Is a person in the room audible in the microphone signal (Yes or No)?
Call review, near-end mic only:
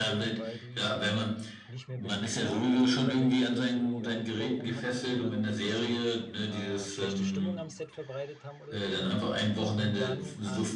Yes